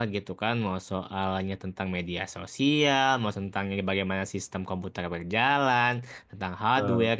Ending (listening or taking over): listening